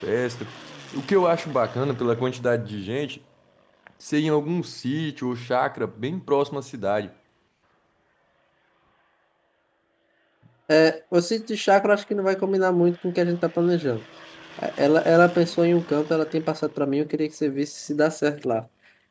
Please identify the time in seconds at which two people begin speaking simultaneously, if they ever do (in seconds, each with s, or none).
none